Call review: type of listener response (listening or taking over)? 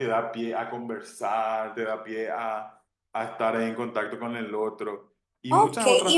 taking over